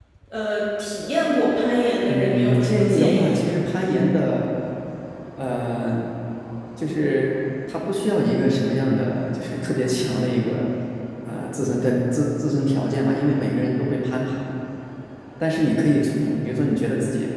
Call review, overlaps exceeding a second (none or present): present